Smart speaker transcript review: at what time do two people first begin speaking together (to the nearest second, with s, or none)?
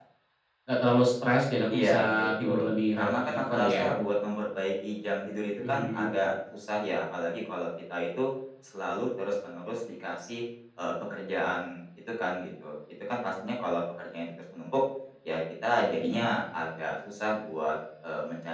2 s